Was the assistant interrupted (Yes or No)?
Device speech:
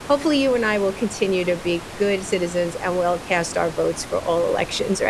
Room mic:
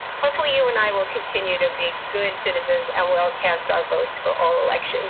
No